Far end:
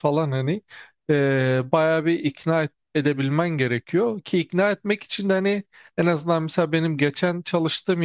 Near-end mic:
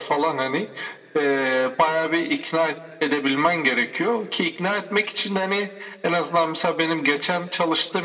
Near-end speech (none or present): none